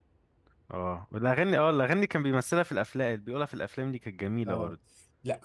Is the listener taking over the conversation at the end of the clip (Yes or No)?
Yes